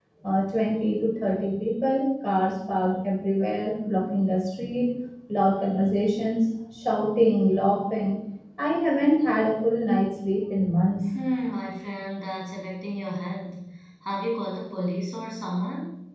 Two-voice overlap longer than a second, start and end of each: none

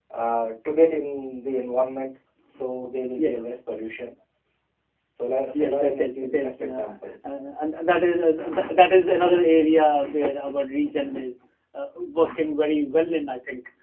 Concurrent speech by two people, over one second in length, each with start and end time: 5.5-6.9

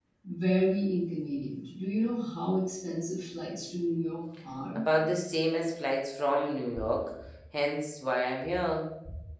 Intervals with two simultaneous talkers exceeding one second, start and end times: none

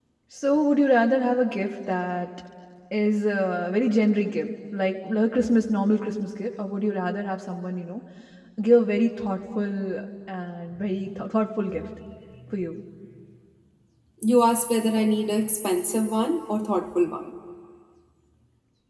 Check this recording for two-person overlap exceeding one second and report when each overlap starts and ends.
none

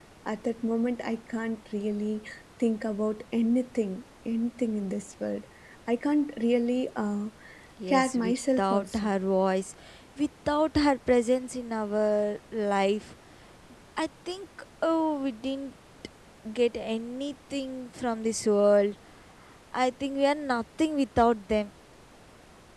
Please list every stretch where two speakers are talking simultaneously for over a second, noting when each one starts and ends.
7.9-9.1

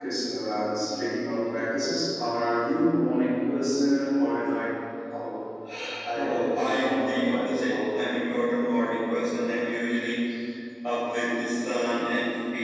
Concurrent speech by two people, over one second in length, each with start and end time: 6.2-7.8

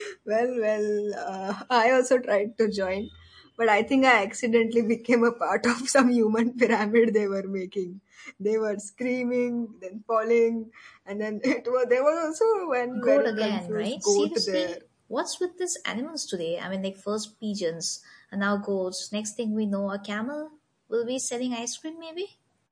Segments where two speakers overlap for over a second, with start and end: 13.0-14.8

